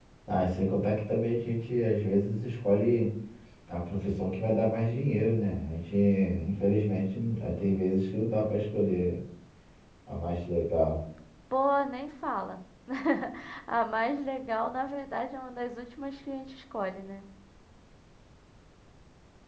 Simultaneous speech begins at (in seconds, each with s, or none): none